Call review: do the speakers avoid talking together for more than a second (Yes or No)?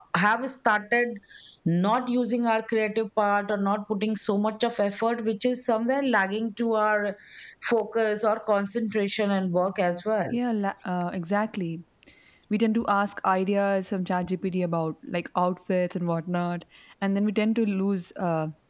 Yes